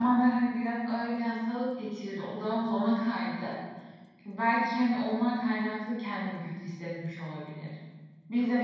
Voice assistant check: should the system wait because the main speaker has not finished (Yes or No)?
No